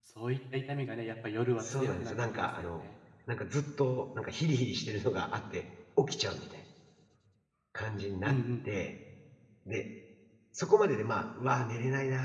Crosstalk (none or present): present